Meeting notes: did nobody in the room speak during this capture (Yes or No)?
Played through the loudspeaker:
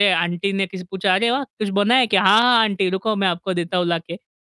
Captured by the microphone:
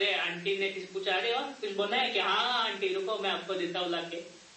Yes